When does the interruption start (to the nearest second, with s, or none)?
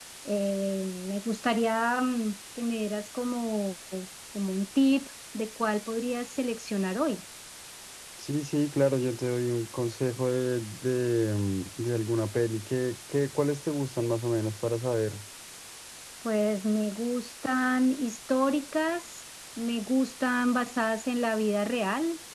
none